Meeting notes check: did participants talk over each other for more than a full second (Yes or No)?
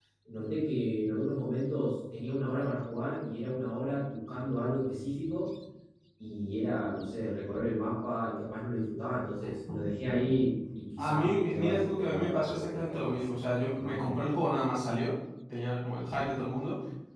Yes